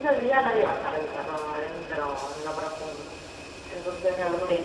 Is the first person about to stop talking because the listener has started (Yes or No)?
No